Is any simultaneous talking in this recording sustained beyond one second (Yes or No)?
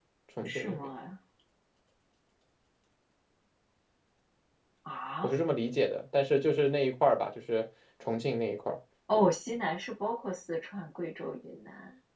No